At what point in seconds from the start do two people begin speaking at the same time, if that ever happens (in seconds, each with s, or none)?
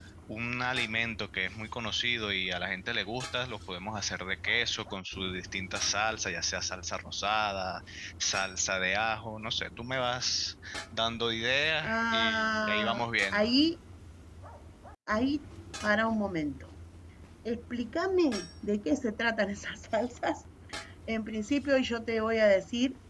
11.8 s